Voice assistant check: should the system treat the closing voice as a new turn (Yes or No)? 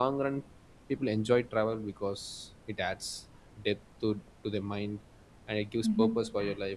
No